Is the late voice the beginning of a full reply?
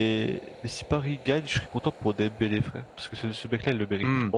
No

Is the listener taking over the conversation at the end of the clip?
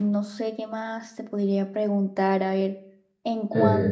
No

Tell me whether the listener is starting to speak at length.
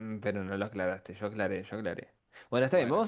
No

